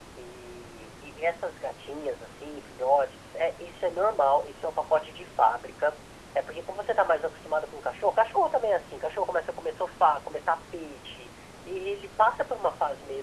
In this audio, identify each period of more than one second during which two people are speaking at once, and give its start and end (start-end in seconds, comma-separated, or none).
none